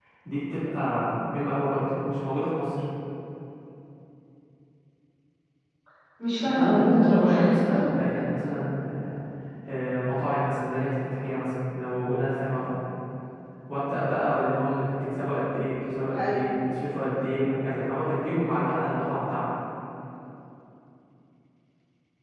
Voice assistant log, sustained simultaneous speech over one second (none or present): present